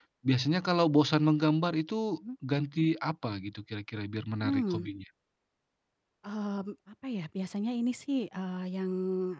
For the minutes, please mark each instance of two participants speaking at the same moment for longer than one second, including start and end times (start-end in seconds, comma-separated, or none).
none